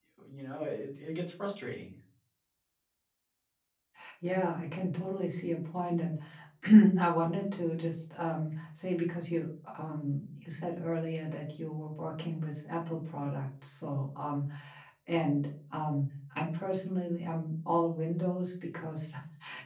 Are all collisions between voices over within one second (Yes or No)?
Yes